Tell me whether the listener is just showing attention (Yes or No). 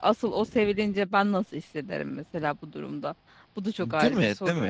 No